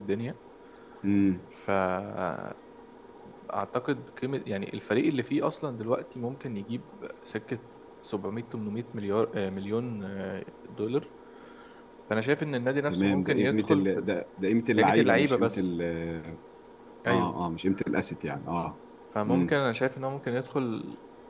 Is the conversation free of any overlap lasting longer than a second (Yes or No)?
No